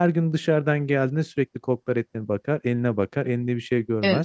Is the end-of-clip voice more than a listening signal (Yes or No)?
Yes